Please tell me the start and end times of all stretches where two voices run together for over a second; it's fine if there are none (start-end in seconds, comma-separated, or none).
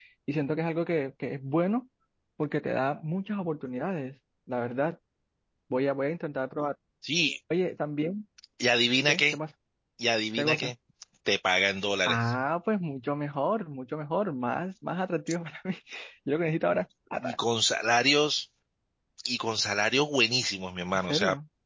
none